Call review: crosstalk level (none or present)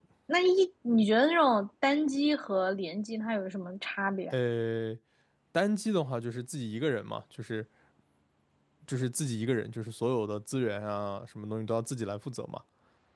none